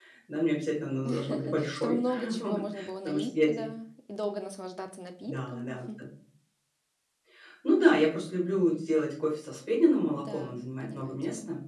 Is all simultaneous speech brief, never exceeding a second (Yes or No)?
No